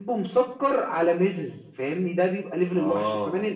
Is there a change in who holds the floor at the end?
No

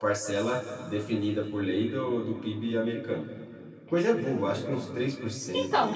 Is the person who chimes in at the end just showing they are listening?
No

